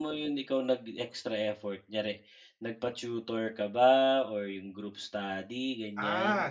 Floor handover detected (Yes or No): Yes